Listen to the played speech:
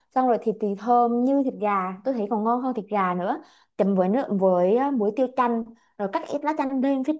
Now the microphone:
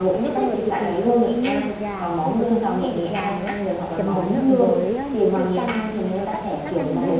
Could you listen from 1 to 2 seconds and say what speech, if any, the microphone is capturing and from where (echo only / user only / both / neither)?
both